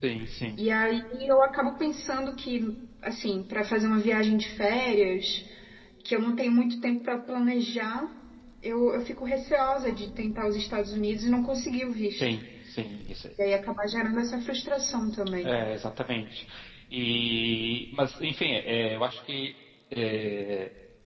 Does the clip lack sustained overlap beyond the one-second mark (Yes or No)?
Yes